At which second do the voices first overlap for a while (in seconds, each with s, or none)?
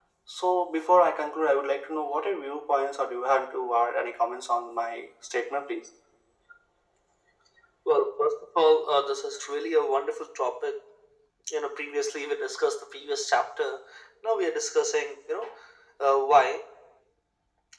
none